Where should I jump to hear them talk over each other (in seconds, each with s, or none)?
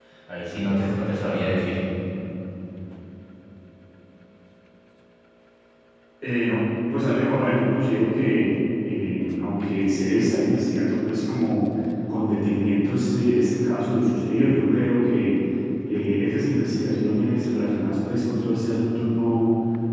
none